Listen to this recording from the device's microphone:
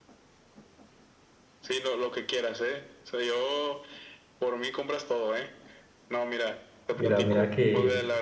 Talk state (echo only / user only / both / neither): both